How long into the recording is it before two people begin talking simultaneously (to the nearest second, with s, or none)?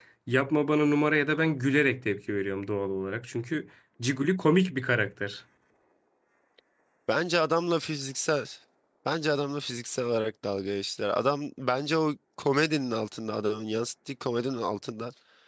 none